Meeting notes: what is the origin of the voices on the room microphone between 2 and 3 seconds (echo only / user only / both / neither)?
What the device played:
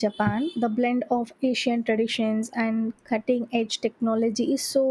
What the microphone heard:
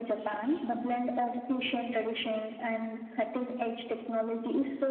echo only